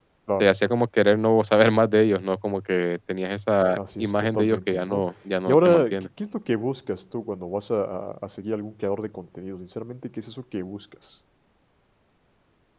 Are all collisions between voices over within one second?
No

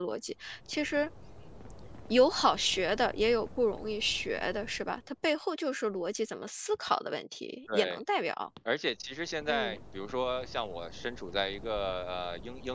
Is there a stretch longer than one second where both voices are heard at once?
No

